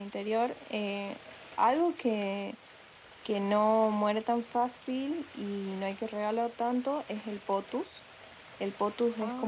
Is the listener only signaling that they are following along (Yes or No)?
Yes